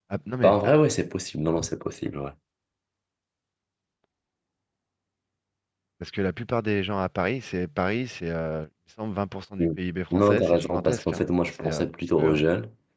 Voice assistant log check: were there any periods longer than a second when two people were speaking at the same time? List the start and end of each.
10.1-12.4

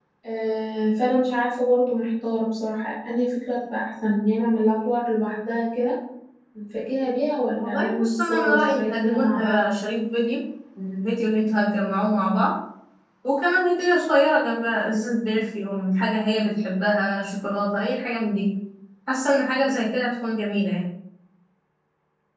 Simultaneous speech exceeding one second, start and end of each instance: 7.5-9.6

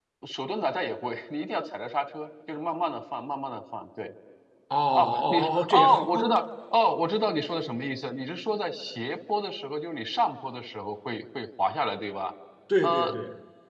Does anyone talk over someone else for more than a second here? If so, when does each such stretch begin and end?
4.9-6.3

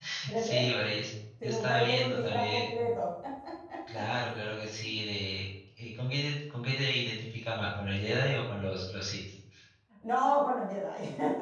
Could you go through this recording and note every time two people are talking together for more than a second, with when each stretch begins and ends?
1.4-2.7

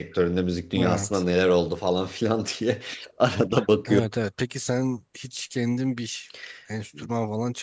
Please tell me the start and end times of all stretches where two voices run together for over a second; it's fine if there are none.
none

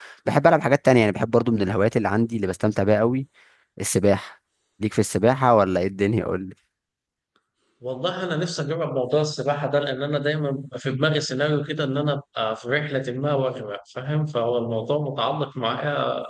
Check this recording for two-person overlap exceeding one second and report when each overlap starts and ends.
none

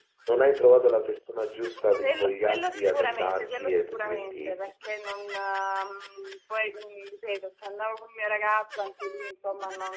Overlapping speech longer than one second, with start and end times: 2.0-4.6

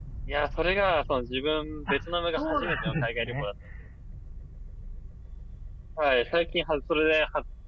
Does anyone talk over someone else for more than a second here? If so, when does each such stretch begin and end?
1.9-3.5

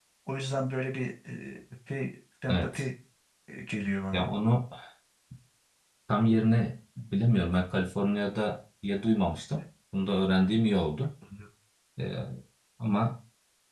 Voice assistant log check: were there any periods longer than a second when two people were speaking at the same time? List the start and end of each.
none

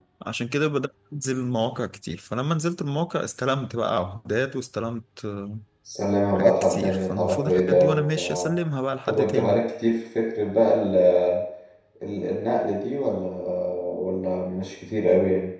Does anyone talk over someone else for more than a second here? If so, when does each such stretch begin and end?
6.4-8.6

